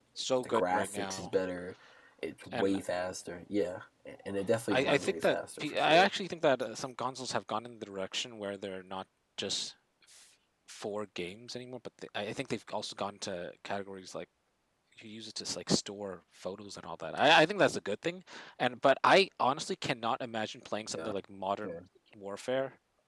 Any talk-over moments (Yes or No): Yes